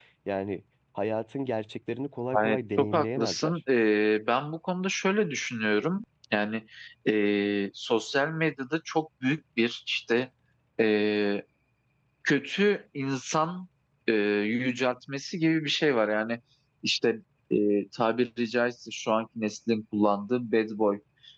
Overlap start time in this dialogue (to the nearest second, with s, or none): 2 s